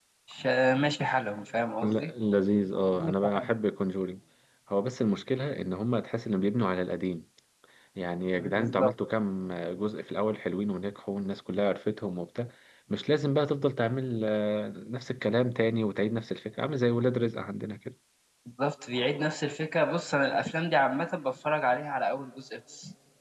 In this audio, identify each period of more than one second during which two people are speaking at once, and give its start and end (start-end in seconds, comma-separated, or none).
none